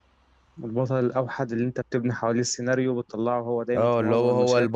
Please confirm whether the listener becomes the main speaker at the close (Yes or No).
Yes